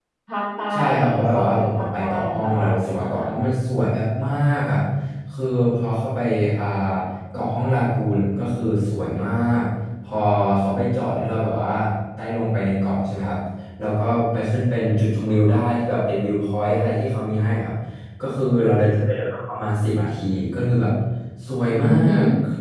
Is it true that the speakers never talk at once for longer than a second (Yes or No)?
No